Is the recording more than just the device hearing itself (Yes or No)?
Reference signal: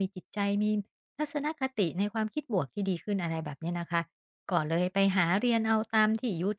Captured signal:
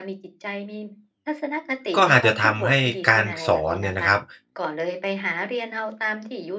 Yes